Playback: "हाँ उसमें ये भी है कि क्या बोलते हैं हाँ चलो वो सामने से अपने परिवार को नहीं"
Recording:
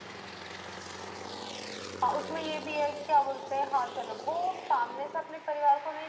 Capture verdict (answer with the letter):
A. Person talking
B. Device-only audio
B